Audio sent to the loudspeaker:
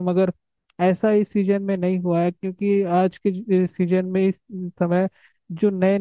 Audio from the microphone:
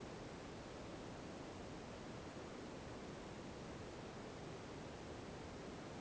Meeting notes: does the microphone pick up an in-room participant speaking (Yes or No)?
No